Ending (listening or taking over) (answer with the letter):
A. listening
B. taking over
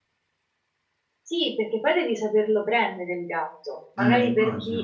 A